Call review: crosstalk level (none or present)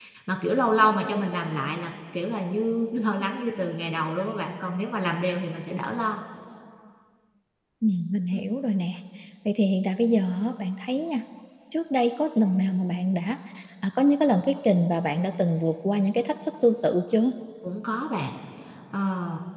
none